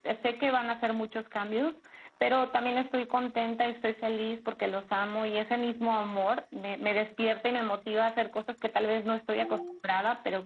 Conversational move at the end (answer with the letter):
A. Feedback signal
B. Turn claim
A